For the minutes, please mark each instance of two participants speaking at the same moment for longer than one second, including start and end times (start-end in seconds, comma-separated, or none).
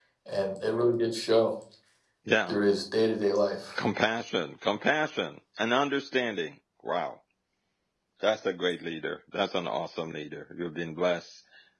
none